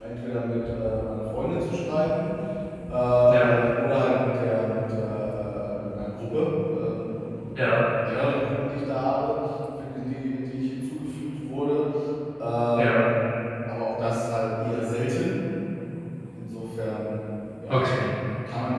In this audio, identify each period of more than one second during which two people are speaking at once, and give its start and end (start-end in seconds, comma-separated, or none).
none